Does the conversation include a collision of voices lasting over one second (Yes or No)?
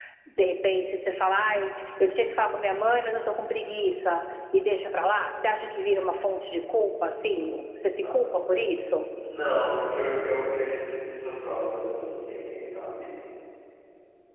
No